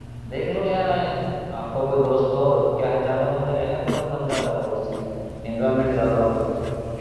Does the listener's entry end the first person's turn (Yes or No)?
Yes